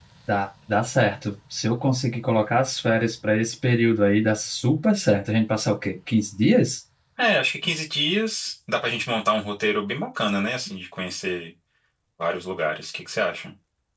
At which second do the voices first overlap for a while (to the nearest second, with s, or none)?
none